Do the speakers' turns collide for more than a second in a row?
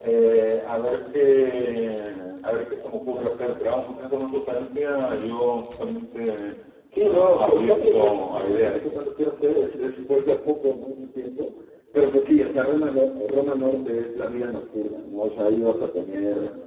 Yes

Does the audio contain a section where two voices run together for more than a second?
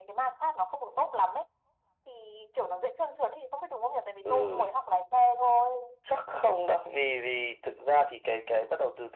No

